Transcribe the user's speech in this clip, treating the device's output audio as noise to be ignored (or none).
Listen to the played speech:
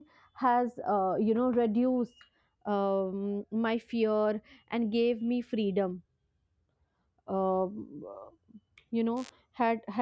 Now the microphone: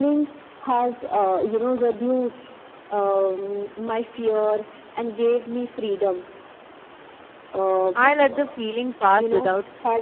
I let the feeling pass without